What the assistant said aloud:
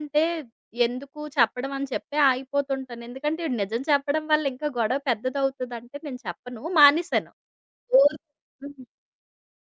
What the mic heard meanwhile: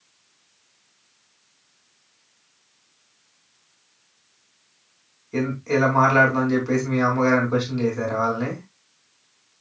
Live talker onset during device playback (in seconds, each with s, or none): 5.3 s